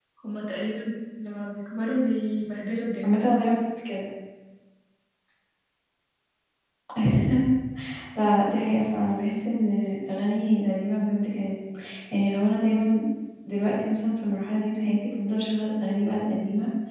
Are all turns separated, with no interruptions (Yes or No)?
Yes